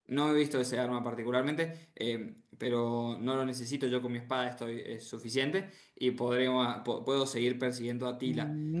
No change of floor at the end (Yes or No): No